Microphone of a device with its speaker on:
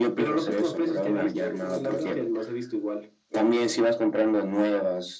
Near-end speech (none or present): none